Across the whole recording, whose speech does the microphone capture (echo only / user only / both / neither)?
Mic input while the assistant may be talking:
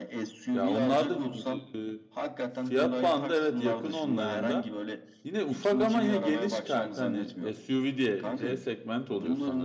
both